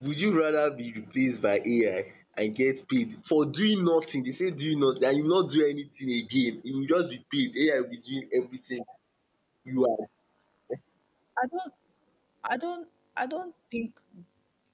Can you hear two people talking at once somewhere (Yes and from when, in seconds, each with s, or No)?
No